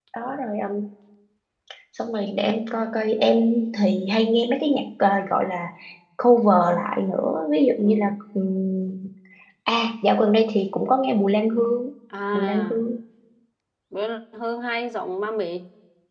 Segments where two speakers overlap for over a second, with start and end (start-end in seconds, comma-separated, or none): none